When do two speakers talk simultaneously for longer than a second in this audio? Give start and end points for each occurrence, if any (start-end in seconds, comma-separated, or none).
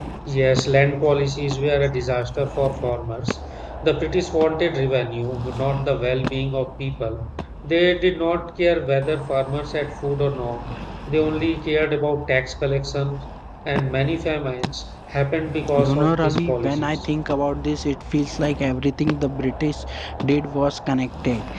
15.8-17.1